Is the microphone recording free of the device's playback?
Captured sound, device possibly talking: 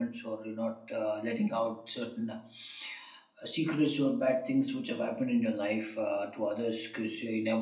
Yes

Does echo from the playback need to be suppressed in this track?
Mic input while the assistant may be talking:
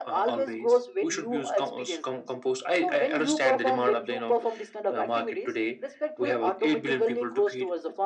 Yes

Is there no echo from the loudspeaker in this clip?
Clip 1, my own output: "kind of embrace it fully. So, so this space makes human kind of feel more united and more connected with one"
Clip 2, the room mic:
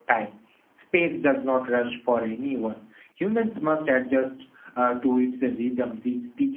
Yes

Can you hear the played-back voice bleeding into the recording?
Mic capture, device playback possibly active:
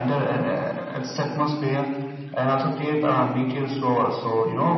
Yes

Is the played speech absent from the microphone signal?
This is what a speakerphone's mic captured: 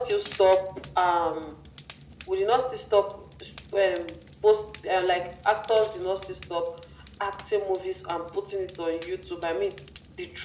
No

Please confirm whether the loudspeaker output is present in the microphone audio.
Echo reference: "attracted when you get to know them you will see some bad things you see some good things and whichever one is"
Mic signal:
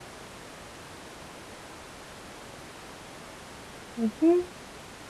No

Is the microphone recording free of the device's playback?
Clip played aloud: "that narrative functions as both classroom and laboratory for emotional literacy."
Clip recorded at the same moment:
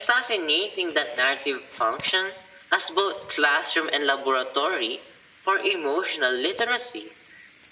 No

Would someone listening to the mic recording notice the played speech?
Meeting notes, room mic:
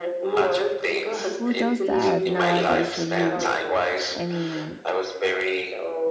Yes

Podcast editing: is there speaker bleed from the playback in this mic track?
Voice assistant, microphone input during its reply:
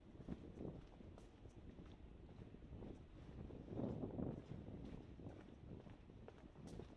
No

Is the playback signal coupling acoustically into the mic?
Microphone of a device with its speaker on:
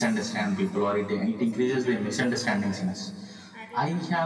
Yes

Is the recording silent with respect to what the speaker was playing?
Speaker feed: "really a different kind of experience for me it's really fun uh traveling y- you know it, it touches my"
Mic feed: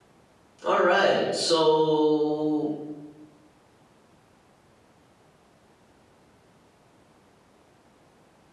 Yes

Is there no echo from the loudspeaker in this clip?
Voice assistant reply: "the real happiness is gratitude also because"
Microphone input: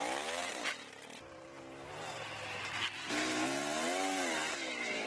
Yes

